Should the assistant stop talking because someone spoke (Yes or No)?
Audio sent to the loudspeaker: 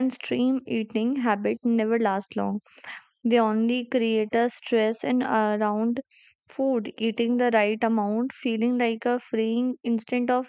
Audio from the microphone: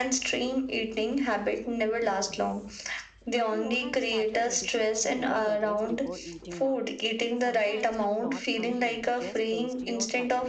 Yes